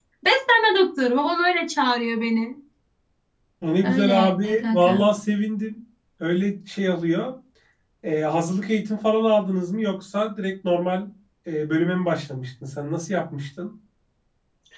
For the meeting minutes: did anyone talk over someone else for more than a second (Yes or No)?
Yes